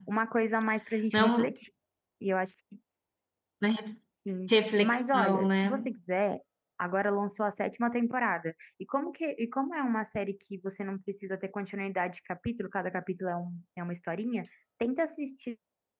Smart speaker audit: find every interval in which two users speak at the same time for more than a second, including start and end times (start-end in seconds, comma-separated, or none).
4.5-5.9